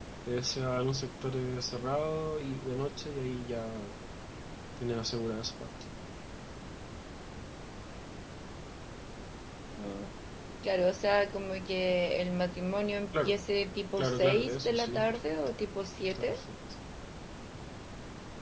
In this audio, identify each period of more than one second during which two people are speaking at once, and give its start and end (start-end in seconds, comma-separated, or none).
14.0-15.5